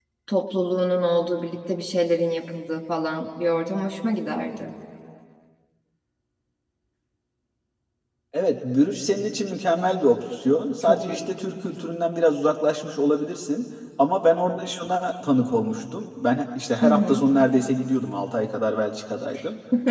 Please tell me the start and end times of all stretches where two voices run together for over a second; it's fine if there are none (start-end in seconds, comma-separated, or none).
none